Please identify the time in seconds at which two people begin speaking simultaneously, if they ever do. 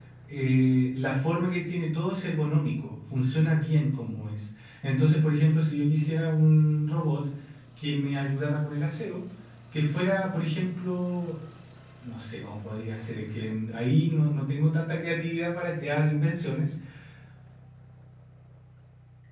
none

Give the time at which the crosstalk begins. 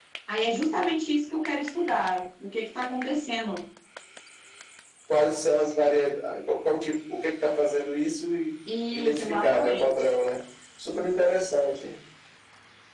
8.9 s

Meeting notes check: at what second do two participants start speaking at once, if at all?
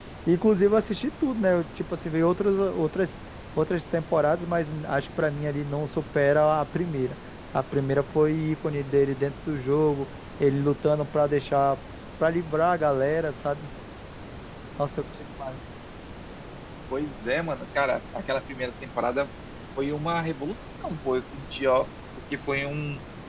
none

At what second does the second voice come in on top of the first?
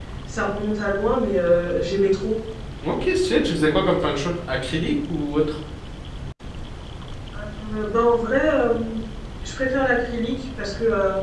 none

